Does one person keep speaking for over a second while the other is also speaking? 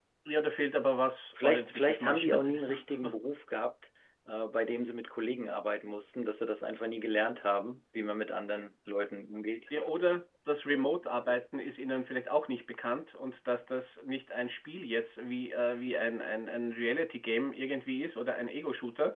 Yes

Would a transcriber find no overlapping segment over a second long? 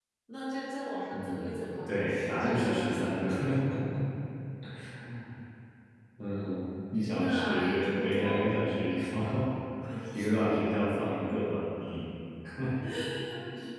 No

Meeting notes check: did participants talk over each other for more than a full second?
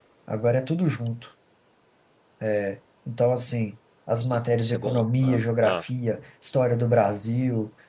Yes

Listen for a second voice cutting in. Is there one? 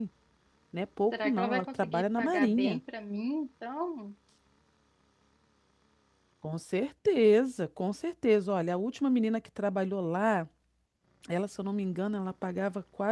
Yes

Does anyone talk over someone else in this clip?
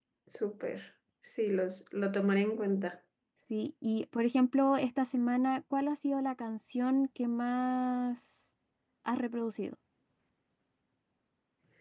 No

